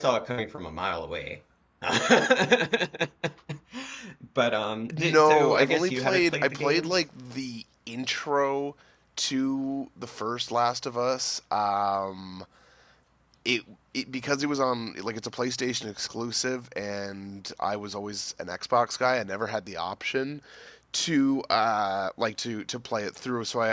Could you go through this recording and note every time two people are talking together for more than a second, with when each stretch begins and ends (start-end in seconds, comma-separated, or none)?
4.9-7.0